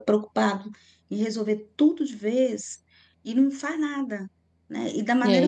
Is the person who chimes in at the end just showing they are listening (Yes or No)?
Yes